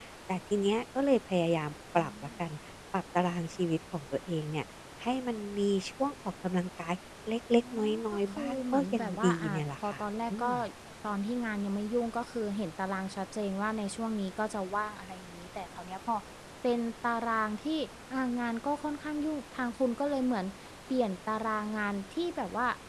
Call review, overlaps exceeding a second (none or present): present